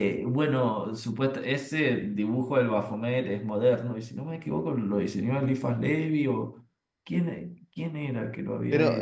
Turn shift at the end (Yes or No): Yes